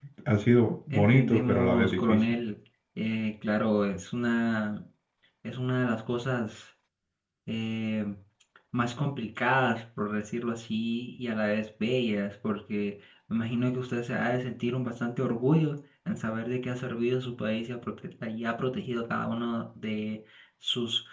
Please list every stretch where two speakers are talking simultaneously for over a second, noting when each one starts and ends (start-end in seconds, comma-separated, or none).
0.9-2.2